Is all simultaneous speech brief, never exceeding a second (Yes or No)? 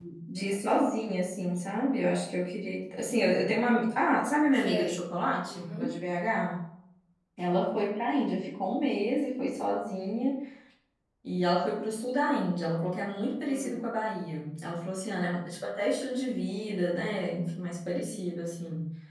Yes